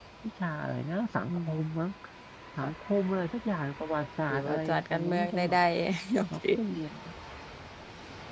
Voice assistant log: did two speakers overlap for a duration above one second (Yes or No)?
Yes